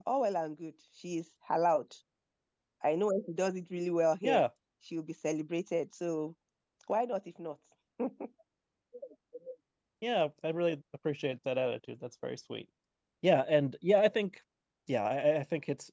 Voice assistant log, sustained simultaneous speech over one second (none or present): none